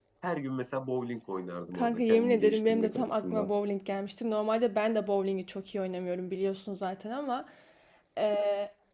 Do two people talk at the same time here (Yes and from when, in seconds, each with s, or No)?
Yes, from 1.7 s